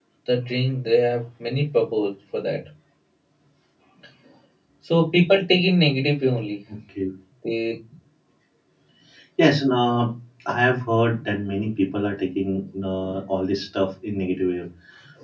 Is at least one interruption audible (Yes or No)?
No